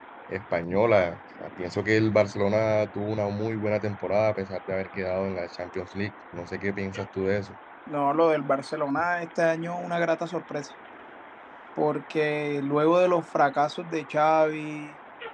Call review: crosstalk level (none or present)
none